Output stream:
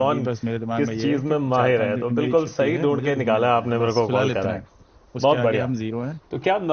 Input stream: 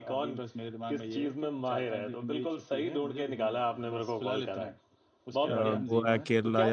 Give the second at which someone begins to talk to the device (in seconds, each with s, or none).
5.5 s